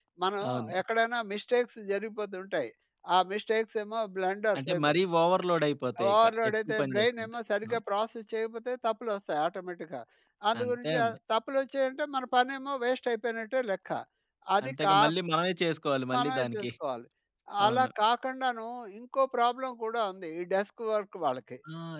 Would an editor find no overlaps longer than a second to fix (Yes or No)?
No